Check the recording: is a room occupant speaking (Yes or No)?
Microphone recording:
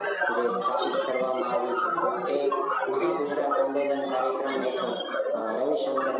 Yes